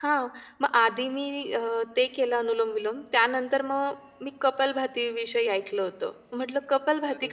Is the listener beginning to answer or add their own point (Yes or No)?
No